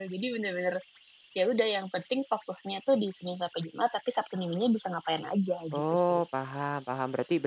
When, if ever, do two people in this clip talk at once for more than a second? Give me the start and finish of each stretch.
none

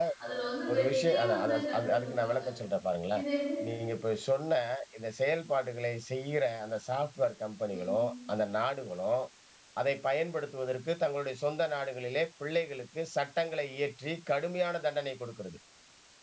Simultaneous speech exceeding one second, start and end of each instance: 0.7-2.4

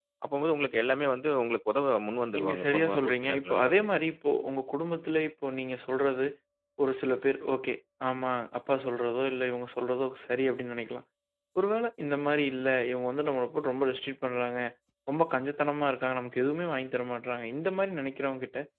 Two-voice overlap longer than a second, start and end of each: 2.3-3.9

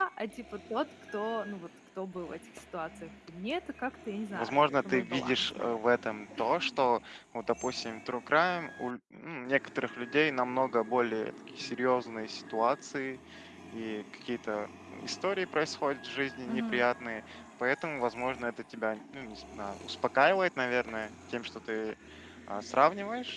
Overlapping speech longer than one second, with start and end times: 4.3-5.8

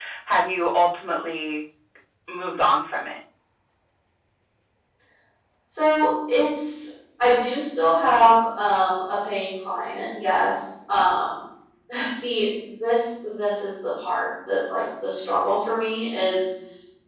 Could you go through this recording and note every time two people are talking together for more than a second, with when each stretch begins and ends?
none

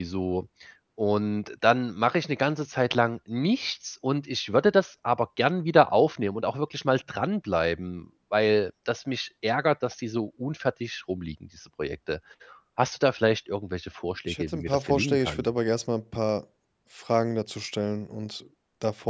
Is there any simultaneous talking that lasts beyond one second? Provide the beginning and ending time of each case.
14.2-15.5

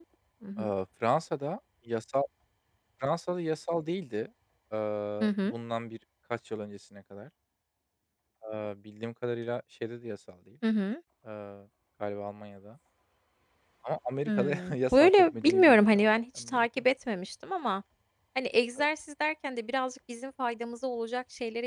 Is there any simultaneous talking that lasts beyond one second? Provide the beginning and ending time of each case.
14.3-16.8

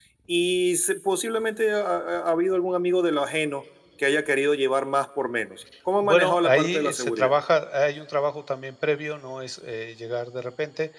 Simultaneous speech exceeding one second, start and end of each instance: 6.0-7.3

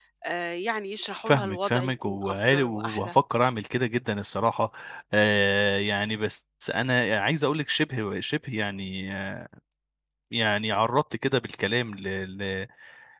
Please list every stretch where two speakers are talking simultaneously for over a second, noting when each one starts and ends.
1.2-3.1

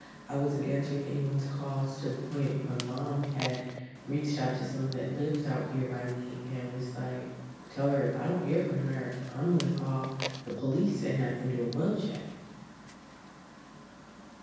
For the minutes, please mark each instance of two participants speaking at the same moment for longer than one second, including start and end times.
none

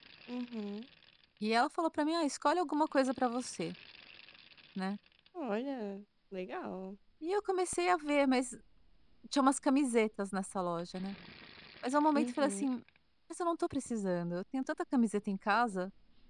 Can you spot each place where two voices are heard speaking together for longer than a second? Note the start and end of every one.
none

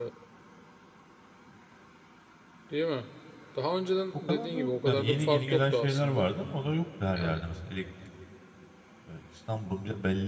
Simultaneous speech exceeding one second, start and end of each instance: 4.3-6.3

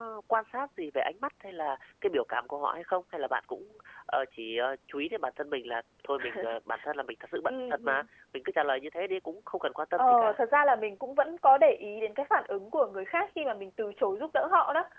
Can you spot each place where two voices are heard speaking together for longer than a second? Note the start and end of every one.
none

